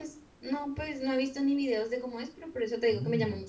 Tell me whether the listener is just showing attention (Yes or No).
Yes